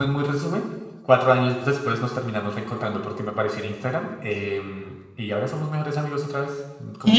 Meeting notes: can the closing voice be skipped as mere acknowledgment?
No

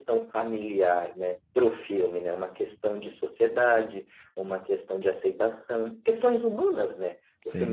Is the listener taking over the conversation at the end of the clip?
No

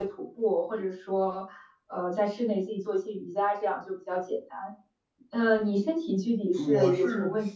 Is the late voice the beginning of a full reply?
Yes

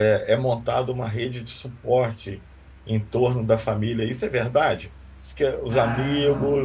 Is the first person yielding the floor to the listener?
No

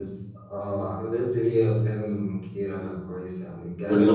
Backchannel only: Yes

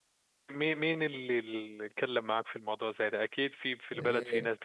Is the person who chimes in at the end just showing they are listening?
No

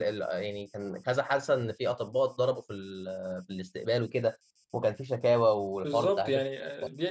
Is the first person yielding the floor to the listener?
Yes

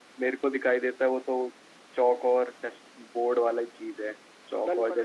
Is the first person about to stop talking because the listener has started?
No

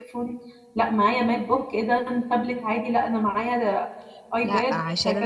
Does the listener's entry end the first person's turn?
Yes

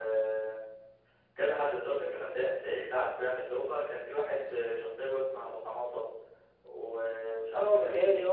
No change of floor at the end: No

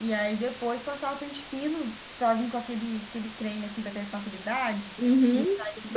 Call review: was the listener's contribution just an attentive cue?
No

